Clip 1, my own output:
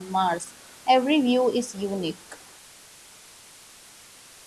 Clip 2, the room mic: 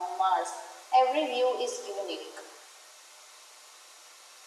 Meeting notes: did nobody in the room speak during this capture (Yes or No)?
Yes